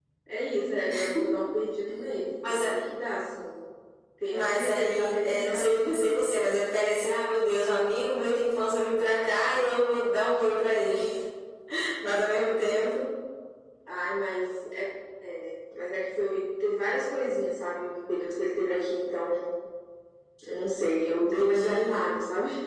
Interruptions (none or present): present